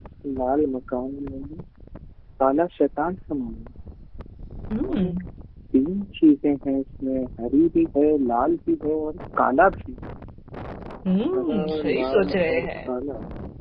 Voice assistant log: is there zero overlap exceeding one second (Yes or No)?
No